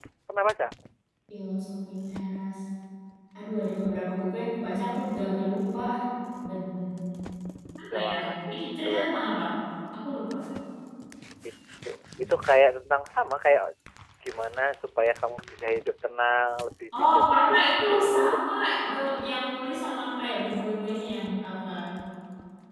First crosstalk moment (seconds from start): 8 s

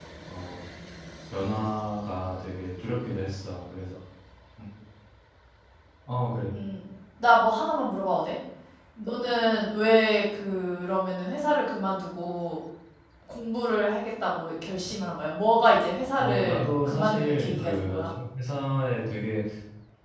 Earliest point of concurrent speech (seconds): 16 s

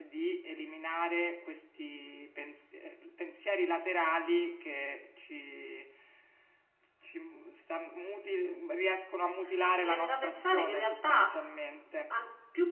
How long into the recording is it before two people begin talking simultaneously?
10 s

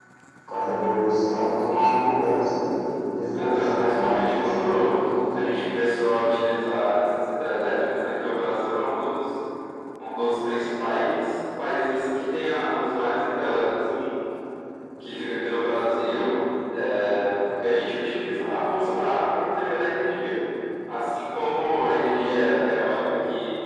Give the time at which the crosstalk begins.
3 s

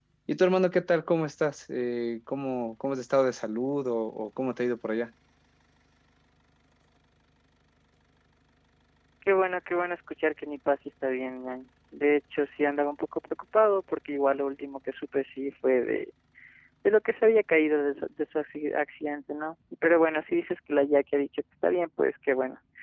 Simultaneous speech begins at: none

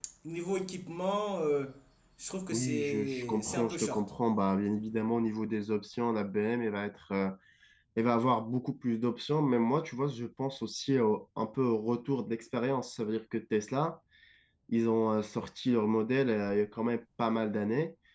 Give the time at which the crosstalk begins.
3 s

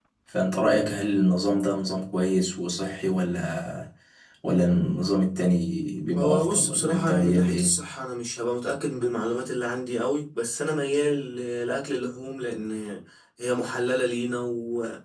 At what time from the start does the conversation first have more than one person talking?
6 s

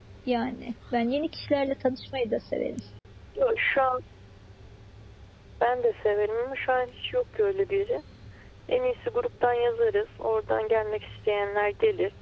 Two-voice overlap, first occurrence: none

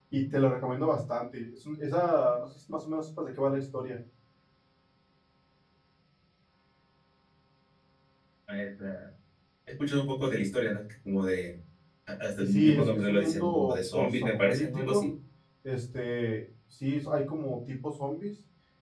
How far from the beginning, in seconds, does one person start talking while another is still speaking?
12 s

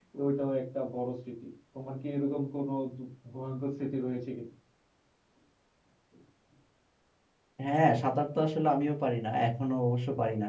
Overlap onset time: none

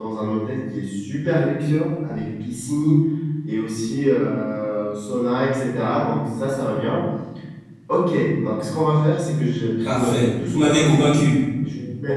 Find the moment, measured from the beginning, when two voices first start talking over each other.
10 s

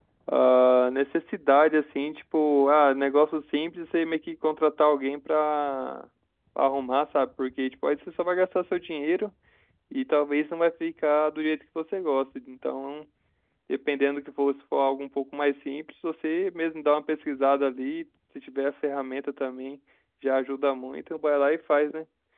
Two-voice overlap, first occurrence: none

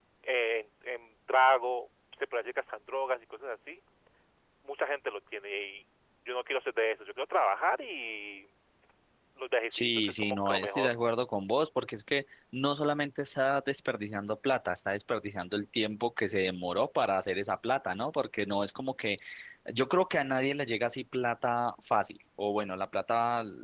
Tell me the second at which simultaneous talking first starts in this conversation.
10 s

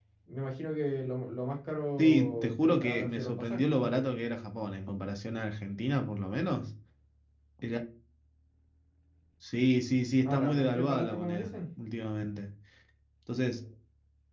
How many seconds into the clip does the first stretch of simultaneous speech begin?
2 s

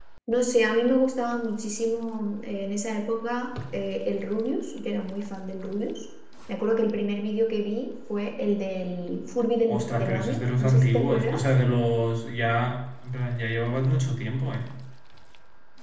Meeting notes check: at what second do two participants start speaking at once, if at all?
10 s

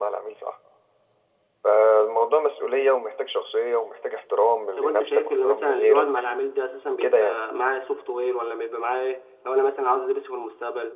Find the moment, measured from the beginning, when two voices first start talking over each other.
5 s

